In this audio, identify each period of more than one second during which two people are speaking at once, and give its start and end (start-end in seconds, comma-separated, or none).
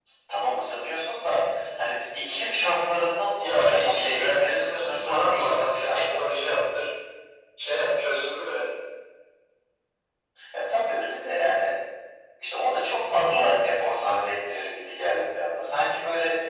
3.4-6.2